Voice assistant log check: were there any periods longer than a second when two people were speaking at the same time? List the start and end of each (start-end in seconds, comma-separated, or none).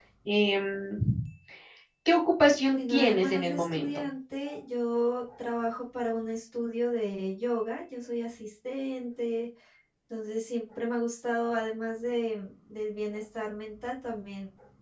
2.7-4.0